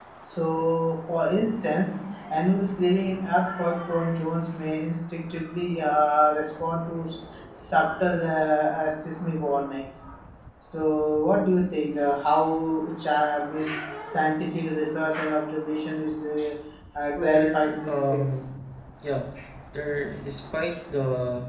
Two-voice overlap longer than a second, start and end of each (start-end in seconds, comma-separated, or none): 17.1-18.4